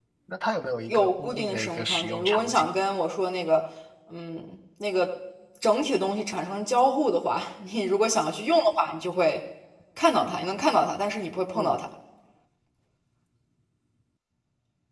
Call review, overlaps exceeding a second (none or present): present